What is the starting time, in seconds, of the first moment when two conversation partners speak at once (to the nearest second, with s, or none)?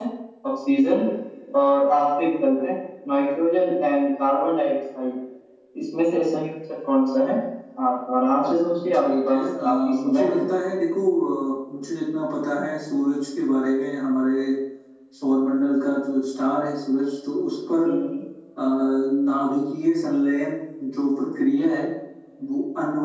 9 s